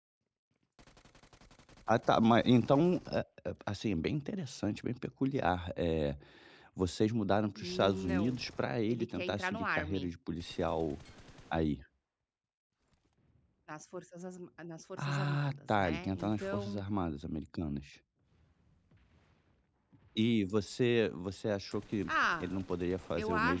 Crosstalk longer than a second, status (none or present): present